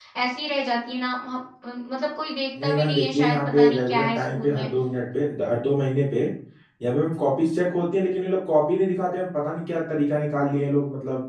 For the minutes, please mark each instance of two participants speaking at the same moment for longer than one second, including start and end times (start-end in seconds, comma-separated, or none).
2.6-4.7